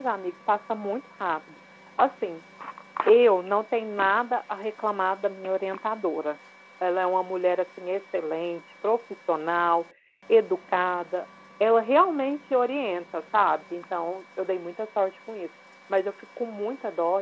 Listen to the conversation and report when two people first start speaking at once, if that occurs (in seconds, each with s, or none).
none